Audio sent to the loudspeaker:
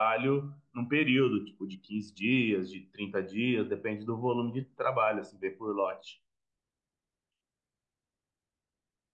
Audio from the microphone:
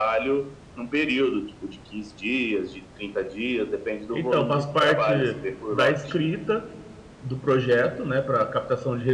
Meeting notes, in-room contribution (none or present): present